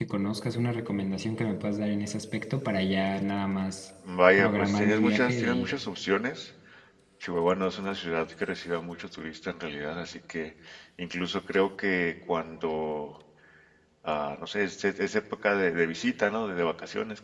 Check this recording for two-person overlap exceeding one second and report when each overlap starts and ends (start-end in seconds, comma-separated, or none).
4.4-5.7